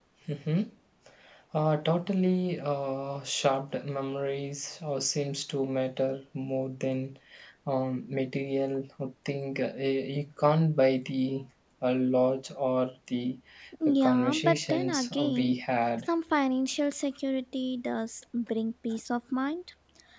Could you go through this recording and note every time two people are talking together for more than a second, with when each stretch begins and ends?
13.9-15.5

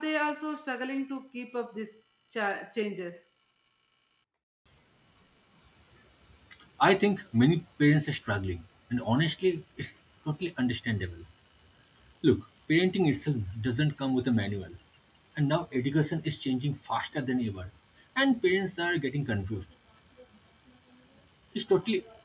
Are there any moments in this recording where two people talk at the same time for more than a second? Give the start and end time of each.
none

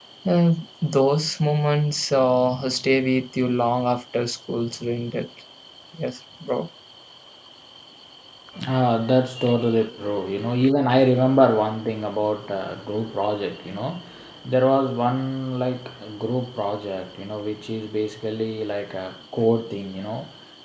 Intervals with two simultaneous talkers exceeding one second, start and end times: none

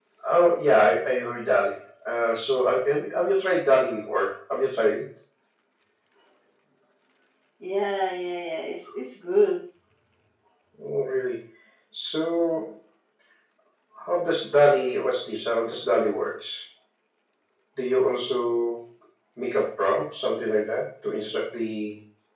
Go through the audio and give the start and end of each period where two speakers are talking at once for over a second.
none

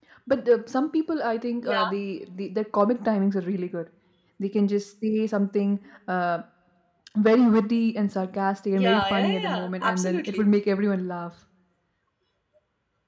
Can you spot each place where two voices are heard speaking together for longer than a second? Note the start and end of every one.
8.8-10.5

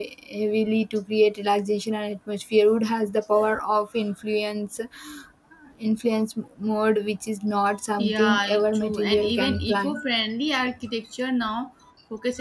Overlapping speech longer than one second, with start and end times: 8.0-10.0

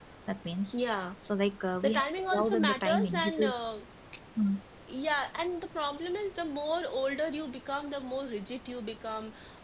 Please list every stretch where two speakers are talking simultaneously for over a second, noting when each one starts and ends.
1.8-3.6

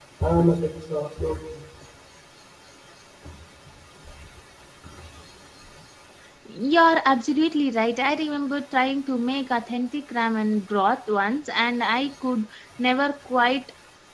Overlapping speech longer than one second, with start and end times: none

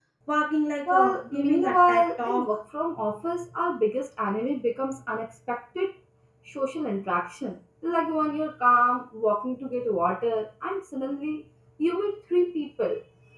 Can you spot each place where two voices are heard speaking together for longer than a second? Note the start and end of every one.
0.9-2.6

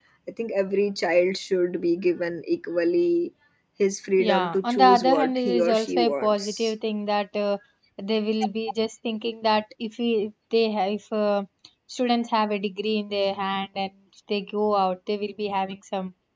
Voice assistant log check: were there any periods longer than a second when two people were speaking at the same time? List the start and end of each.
4.2-6.7

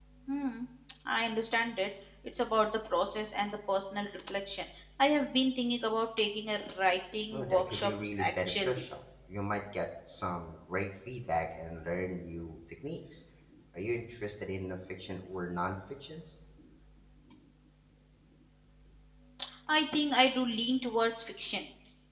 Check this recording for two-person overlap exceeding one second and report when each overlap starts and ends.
7.3-8.8

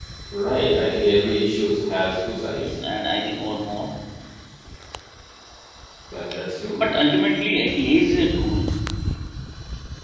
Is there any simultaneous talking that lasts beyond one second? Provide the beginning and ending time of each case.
none

